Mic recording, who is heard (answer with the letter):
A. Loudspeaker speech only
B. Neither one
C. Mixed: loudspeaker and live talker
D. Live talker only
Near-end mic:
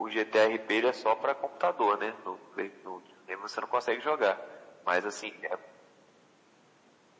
A